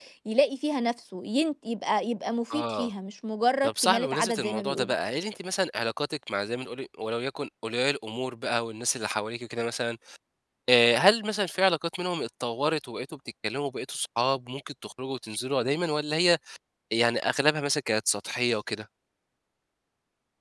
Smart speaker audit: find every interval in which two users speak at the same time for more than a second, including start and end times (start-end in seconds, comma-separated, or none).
3.6-4.9